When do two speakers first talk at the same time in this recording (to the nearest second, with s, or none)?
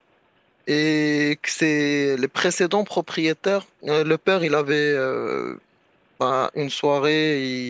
none